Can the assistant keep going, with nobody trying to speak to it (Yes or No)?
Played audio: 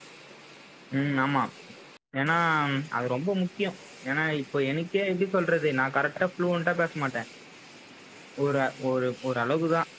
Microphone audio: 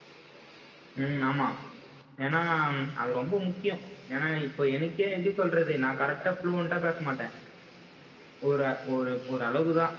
Yes